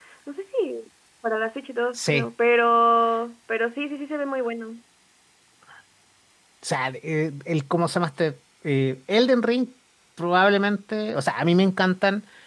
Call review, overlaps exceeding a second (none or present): none